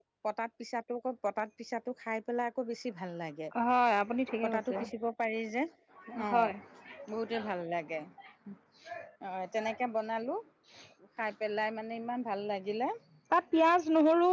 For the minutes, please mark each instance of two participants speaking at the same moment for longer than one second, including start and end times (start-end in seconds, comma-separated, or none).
none